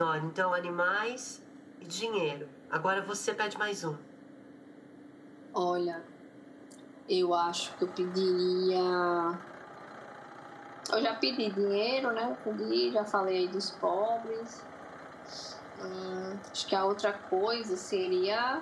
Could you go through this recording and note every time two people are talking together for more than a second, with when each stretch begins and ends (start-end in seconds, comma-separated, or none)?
none